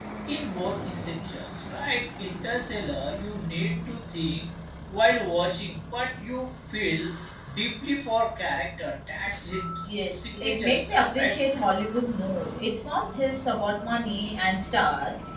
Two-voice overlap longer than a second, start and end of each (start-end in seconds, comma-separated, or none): 9.8-11.4